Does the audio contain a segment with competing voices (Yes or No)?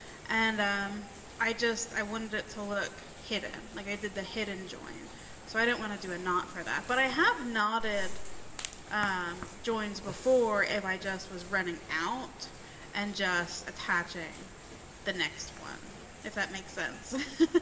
No